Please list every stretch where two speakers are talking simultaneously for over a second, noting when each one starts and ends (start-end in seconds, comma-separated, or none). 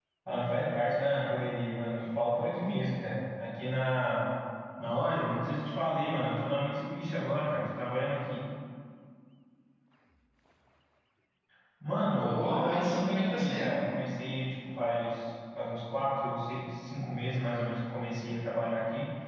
12.1-13.9